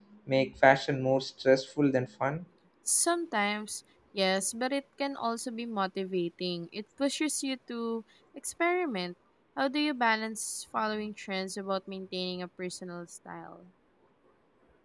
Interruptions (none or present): none